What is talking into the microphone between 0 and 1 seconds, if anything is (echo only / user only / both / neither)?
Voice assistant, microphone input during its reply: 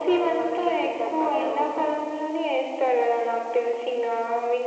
echo only